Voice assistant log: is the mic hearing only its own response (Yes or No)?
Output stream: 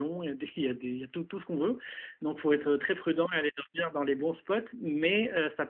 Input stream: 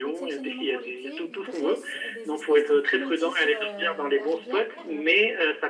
No